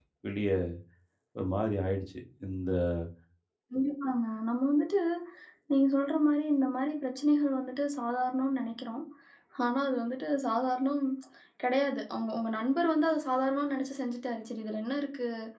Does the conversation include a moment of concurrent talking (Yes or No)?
No